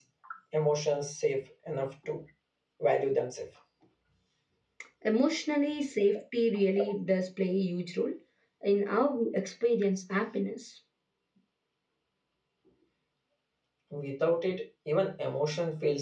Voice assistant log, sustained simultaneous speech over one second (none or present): none